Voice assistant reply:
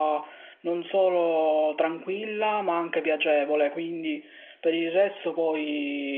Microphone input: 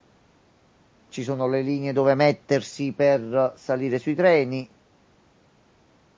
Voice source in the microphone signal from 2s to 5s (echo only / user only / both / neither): user only